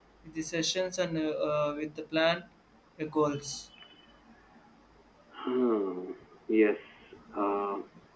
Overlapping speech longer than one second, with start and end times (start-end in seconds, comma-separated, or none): none